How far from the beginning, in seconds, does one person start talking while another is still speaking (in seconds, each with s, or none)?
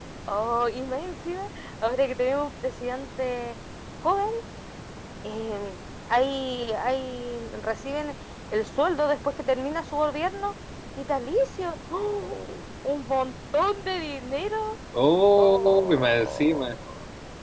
15.4 s